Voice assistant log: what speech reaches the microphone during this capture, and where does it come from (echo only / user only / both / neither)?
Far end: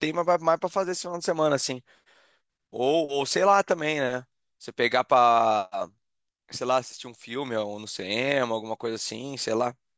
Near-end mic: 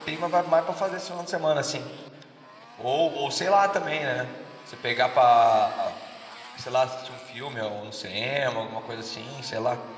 echo only